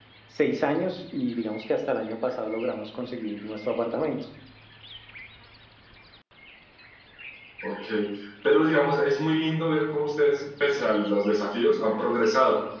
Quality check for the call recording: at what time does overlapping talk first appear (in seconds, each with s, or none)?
none